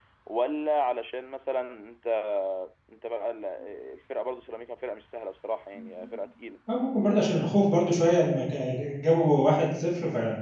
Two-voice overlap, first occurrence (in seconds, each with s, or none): none